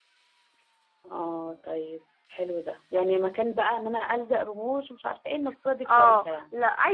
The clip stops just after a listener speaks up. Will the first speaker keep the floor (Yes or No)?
No